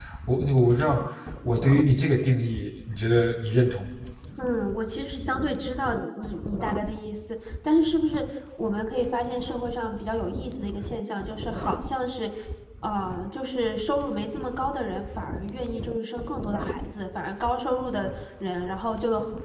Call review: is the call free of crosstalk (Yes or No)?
Yes